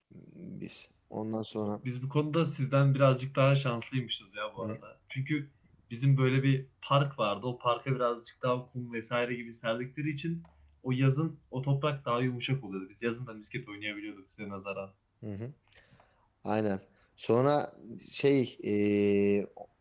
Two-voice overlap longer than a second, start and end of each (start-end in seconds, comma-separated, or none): none